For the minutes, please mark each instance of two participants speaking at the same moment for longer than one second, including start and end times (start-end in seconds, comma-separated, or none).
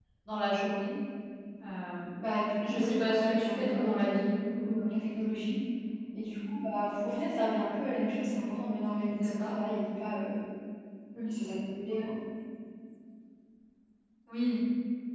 2.6-4.8